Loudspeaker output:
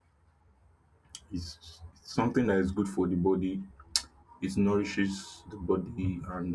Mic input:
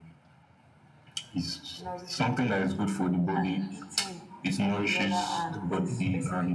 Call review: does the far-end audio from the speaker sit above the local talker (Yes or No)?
Yes